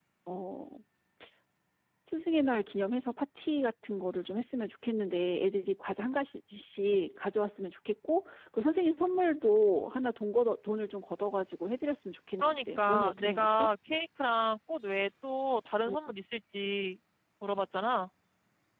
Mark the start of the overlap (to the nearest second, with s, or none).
12 s